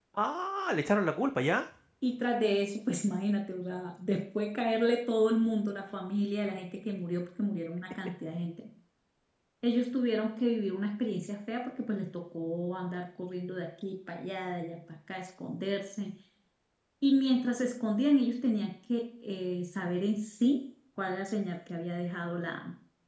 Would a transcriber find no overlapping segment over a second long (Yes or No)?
Yes